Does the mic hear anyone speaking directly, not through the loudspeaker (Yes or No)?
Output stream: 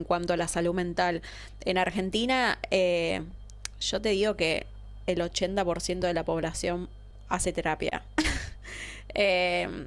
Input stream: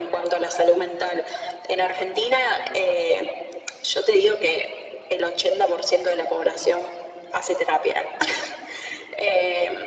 No